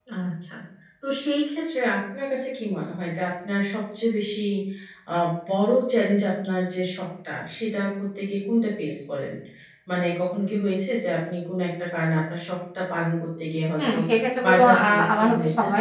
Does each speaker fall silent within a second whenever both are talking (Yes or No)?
No